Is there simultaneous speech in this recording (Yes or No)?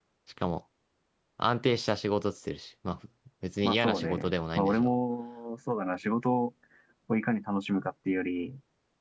Yes